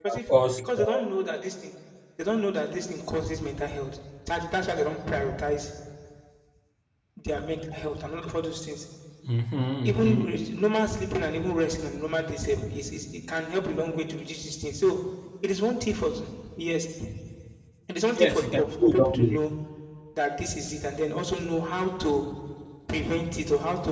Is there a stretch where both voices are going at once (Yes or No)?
Yes